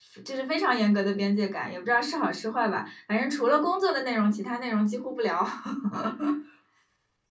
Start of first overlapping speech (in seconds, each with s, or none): none